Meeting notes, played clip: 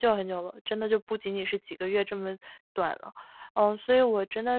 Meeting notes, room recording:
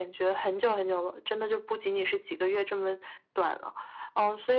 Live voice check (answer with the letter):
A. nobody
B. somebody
A